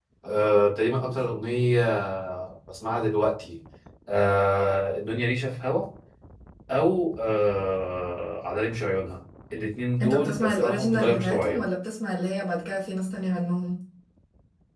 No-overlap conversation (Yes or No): No